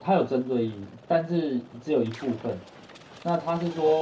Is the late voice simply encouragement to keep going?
Yes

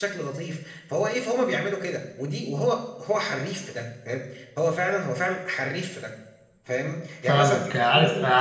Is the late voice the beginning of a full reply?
Yes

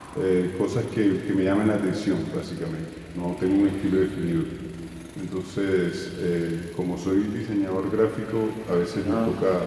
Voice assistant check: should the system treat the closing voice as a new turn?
No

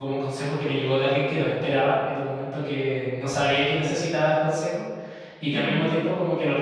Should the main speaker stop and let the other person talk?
No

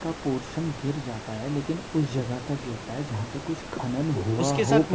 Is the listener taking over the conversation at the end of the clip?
Yes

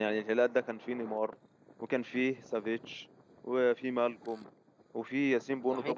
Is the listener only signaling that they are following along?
Yes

